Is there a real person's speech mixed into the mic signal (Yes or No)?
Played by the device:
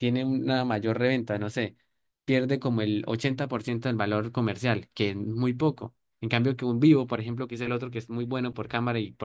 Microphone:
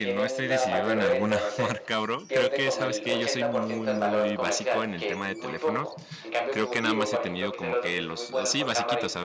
Yes